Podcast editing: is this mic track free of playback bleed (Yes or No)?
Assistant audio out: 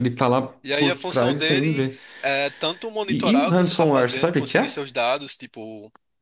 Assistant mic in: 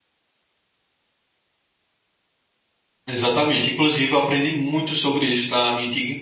Yes